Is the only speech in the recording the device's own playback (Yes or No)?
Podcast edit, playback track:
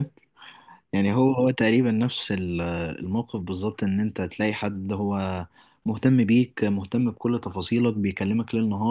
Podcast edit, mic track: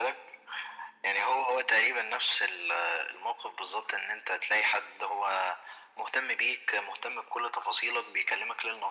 Yes